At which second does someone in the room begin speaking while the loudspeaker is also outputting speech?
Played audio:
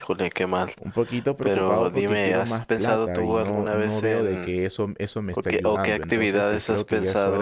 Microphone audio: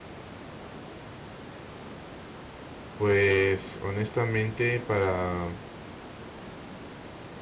3.0 s

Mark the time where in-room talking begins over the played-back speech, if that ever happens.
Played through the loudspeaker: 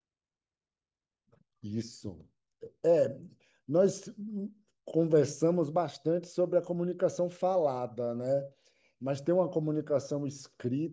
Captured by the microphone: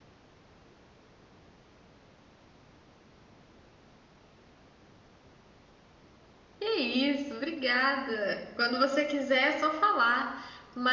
6.6 s

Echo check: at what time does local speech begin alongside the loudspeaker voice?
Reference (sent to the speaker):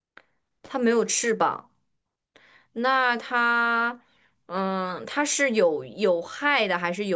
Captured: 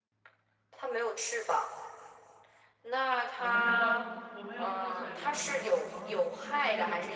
3.3 s

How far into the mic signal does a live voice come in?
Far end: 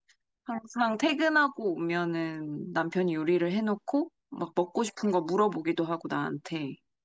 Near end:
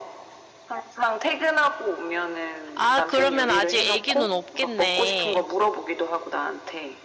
2.8 s

